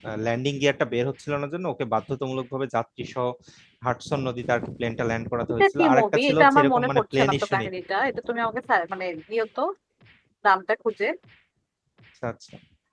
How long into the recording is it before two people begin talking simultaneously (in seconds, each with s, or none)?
5.6 s